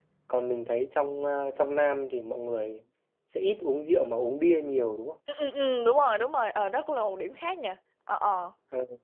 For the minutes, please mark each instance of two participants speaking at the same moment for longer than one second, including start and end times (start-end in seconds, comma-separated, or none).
none